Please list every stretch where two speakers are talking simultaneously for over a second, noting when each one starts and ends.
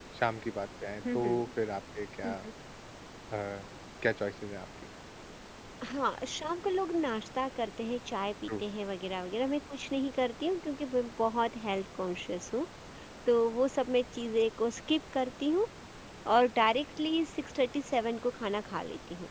none

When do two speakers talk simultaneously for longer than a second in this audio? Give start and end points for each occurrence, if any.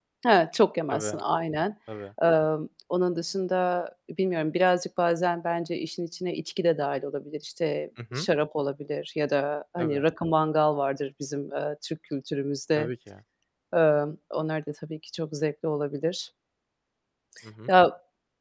none

